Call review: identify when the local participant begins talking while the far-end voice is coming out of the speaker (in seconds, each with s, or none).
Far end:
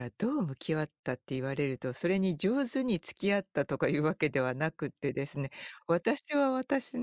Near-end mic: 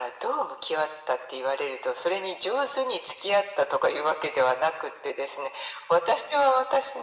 none